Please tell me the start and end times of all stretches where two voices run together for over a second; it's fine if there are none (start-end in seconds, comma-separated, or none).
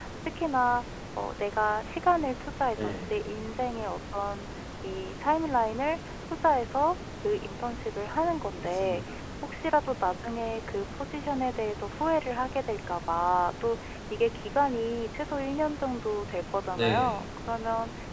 none